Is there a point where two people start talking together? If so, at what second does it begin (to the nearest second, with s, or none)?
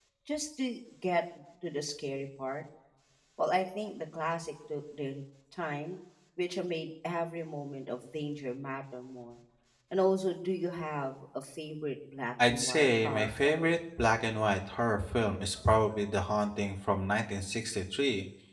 12 s